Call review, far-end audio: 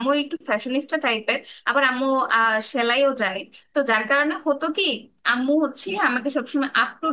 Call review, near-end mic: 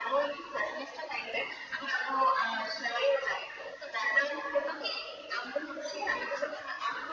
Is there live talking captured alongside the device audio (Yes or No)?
No